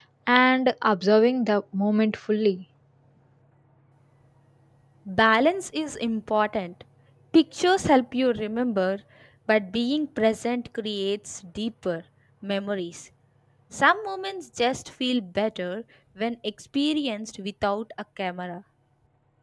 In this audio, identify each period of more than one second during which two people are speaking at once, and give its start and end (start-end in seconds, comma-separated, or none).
none